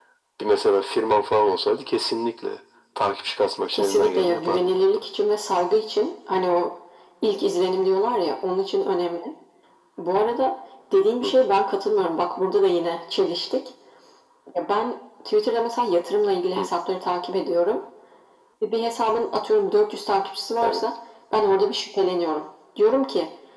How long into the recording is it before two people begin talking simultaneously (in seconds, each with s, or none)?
3.7 s